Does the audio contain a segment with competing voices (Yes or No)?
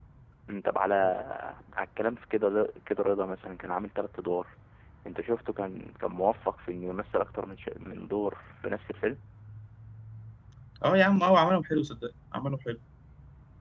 No